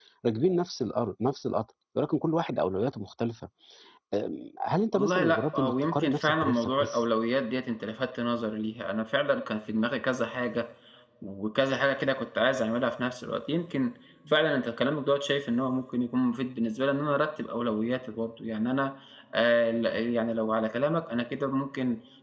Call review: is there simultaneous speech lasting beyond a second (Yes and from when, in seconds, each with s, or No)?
Yes, from 4.9 s